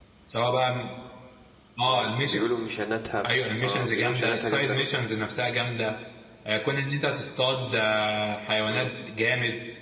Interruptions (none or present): present